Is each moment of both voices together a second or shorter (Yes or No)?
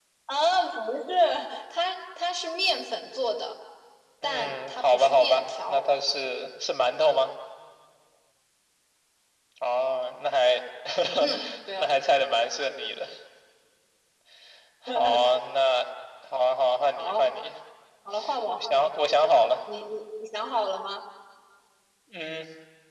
No